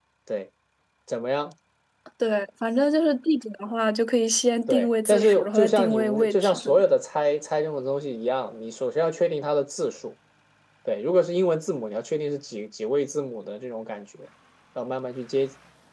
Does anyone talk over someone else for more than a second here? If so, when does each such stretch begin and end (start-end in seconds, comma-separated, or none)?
4.7-6.8